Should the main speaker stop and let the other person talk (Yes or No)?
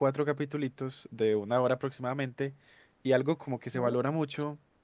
No